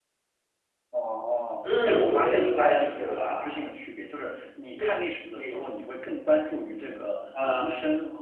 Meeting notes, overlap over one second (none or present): present